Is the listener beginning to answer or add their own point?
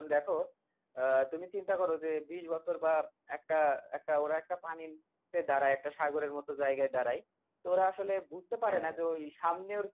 No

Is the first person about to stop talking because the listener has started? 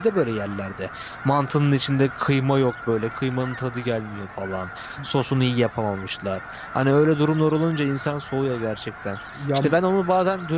No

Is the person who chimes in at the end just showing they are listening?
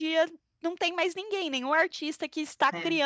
Yes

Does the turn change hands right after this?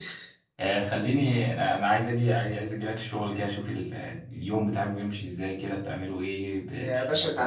Yes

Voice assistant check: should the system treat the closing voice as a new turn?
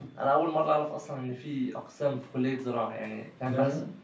No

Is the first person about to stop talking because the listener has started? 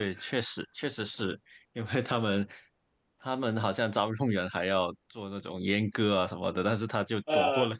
No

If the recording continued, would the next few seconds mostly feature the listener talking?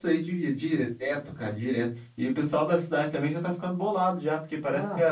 No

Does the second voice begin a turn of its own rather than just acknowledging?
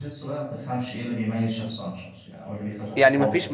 Yes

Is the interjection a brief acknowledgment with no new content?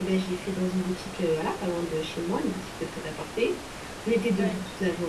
Yes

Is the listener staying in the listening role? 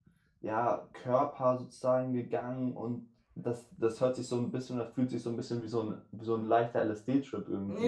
No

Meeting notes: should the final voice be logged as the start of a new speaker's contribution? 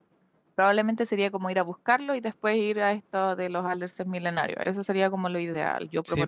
Yes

